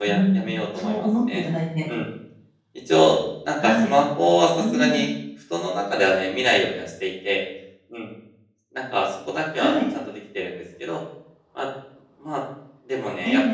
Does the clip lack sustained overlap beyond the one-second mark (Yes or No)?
No